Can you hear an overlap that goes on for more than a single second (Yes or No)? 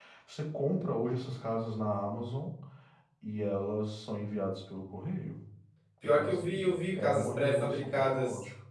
Yes